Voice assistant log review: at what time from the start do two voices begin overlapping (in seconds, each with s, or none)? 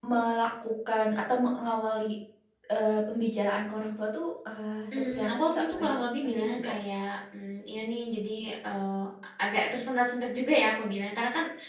4.9 s